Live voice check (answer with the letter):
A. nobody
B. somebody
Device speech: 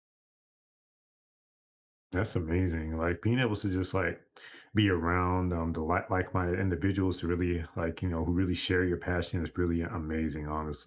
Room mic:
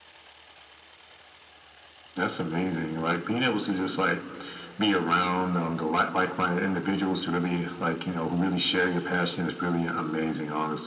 A